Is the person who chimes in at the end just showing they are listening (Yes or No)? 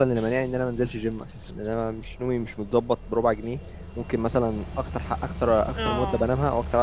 Yes